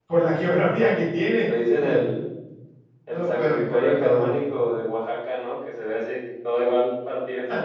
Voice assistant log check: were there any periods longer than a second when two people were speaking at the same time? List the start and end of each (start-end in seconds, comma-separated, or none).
3.1-4.4